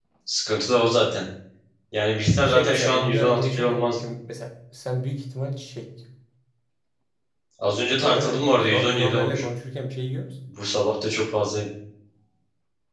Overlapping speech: Yes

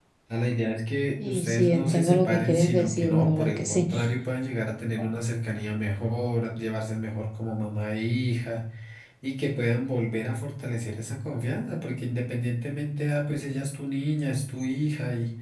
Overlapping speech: Yes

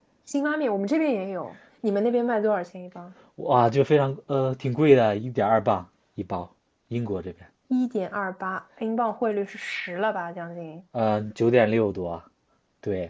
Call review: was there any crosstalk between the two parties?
No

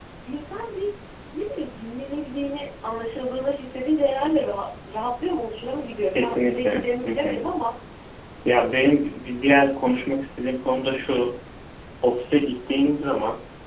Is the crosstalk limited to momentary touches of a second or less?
No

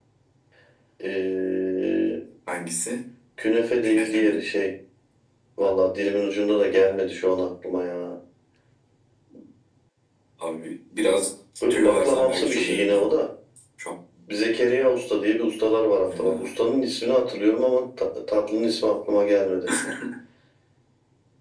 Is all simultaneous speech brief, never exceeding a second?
No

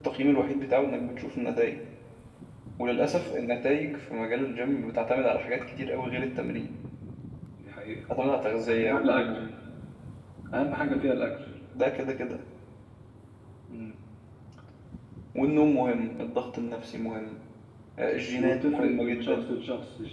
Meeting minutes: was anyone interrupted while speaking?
Yes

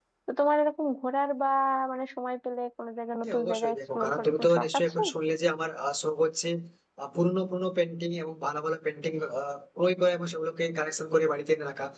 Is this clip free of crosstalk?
No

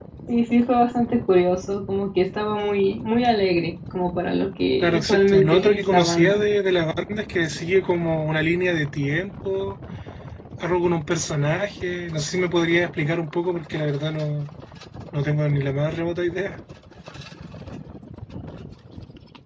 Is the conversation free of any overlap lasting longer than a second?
No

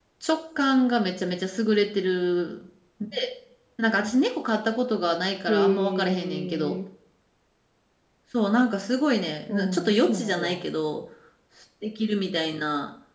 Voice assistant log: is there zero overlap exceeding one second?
No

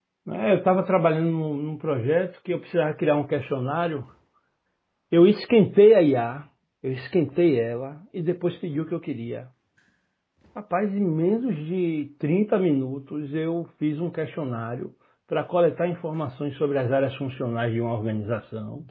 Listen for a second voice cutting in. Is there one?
No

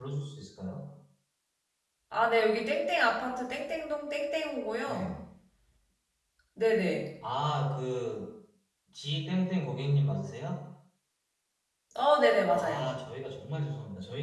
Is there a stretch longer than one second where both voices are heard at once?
No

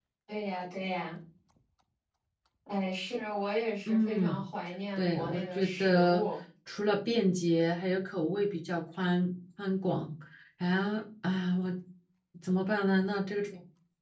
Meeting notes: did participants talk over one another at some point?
Yes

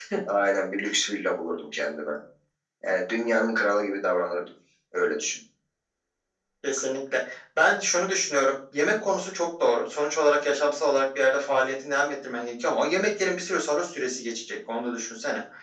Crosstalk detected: No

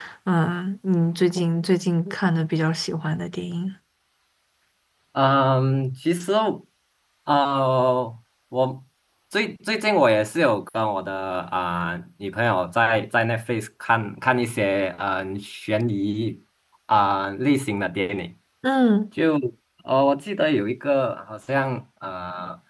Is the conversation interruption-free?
Yes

